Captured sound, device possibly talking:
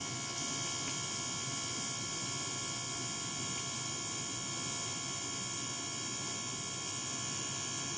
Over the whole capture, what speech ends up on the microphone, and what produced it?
neither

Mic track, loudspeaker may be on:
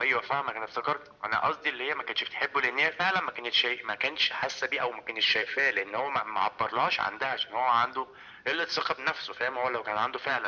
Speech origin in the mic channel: echo only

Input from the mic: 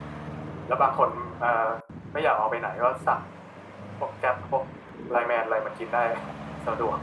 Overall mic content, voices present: echo only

